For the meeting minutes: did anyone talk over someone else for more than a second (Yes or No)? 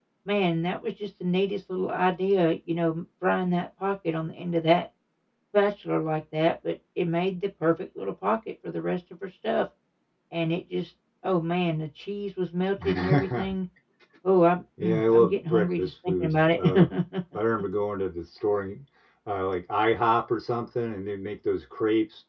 Yes